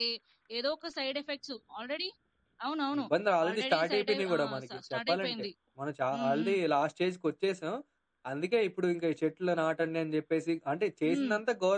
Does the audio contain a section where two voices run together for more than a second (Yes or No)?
Yes